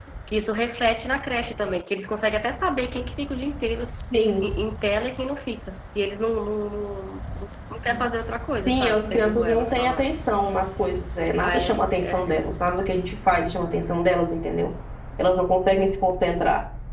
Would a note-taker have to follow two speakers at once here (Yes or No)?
Yes